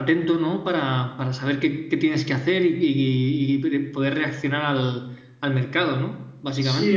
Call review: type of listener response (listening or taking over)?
taking over